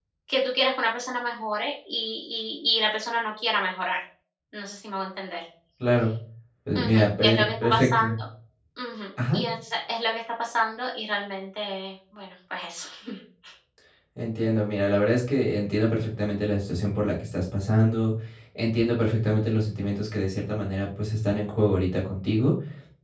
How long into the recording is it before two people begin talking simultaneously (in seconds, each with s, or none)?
6.8 s